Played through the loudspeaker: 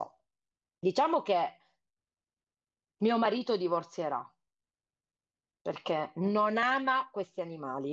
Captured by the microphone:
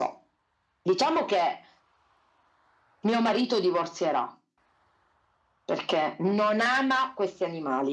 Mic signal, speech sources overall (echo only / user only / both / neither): echo only